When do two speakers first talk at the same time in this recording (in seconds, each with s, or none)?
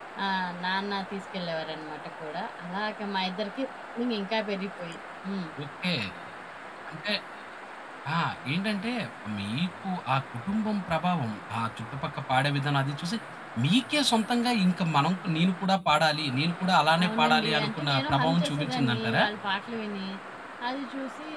17.0 s